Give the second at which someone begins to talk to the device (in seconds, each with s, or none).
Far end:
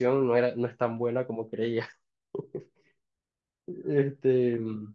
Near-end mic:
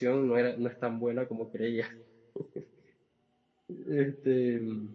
none